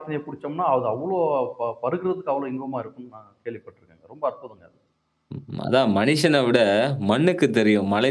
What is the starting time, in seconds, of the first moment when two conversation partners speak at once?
none

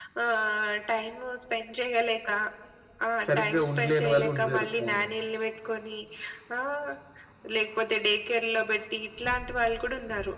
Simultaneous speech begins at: 3.3 s

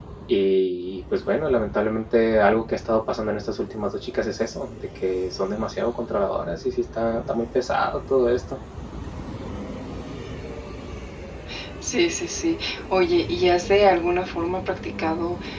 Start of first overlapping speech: none

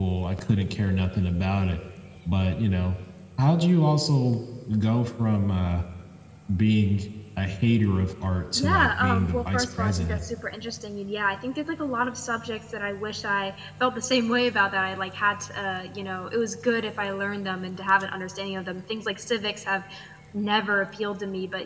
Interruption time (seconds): 8.6 s

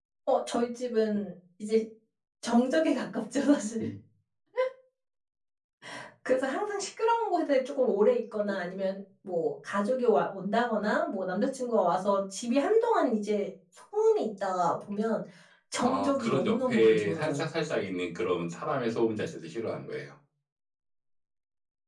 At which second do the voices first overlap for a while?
15.8 s

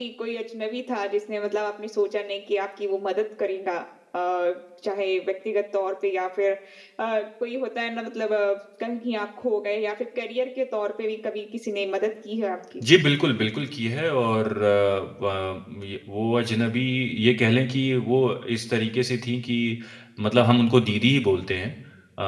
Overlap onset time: none

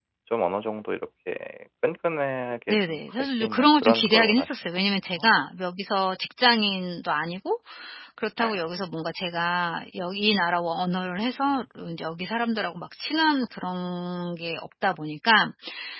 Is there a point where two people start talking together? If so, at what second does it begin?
2.7 s

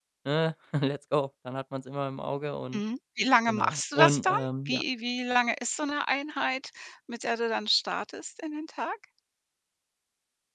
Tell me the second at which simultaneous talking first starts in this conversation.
3.5 s

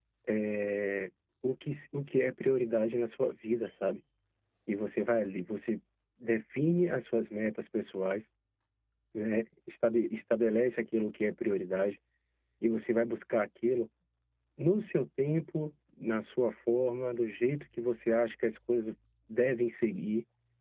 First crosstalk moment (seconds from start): none

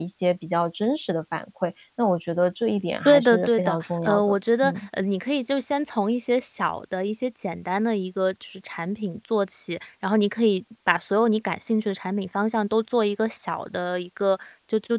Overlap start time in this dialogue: 3.0 s

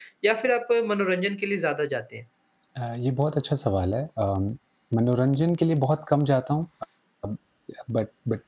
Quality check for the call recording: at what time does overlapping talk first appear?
none

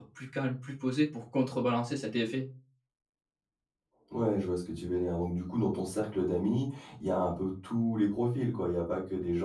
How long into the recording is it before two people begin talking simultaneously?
none

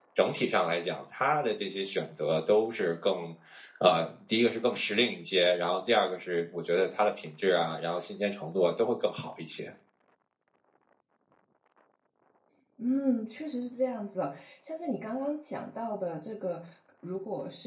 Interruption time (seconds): none

